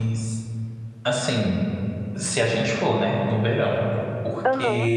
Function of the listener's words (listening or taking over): listening